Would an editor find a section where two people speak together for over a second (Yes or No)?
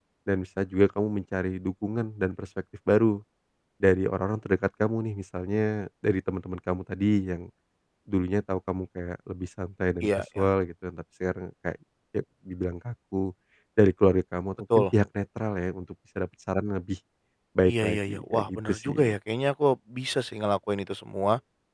Yes